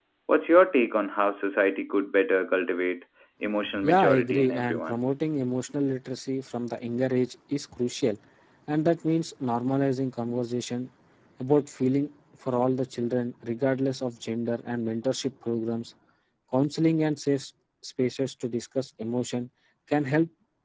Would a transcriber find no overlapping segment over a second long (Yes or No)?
No